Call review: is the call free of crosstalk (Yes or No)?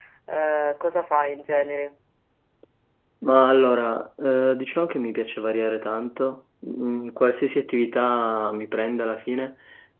Yes